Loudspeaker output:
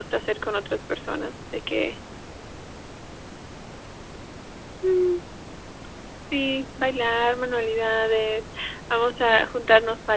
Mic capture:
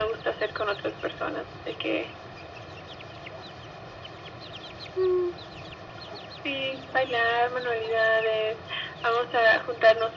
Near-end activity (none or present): none